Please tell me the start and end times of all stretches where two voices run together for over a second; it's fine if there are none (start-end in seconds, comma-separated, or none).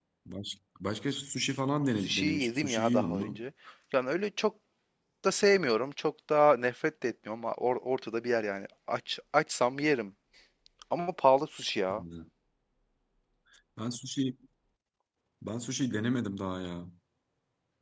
2.0-3.4